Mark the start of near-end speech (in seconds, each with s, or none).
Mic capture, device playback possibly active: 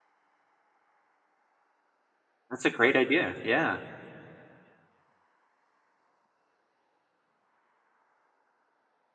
2.5 s